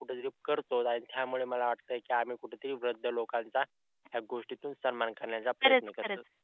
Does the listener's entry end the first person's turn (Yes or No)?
Yes